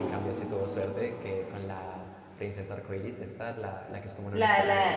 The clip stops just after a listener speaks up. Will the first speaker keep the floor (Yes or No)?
No